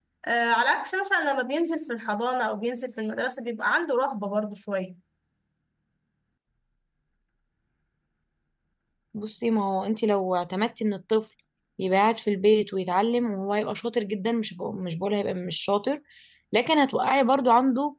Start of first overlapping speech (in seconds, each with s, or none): none